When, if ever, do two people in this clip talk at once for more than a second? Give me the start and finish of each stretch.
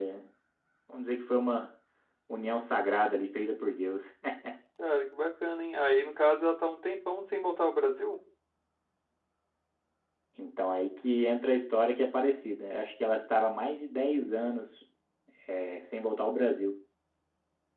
none

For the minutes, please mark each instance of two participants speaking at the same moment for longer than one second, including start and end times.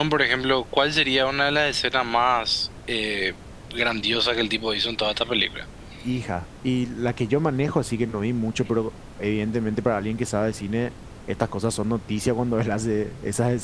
none

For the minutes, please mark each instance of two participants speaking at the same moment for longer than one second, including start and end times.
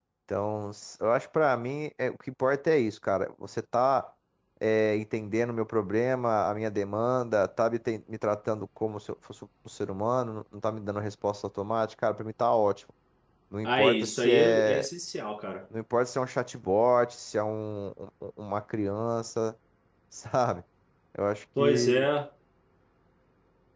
13.6-14.9

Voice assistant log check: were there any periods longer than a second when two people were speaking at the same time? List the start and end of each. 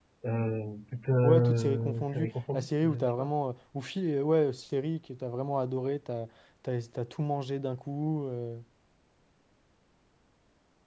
1.2-3.3

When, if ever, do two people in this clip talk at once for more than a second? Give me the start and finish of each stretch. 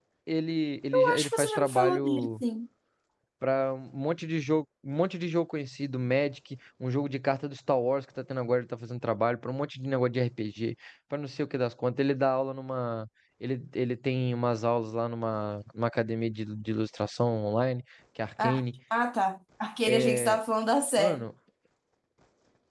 0.9-2.3

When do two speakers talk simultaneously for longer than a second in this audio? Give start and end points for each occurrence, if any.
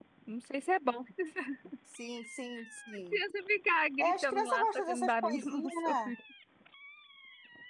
4.0-6.1

